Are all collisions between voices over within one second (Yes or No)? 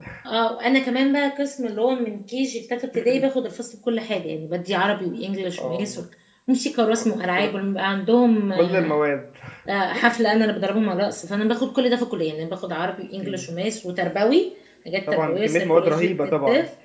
No